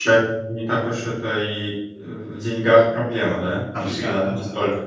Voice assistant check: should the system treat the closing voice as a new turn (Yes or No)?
Yes